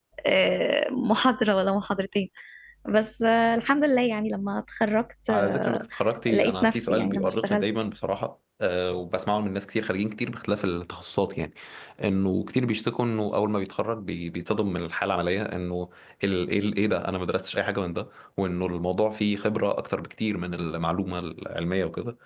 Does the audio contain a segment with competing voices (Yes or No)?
Yes